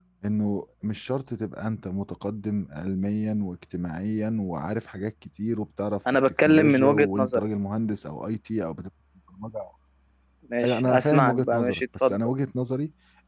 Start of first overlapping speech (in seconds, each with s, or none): 6.1 s